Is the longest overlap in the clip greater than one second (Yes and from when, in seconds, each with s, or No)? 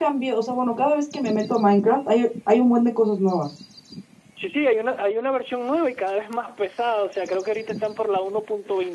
No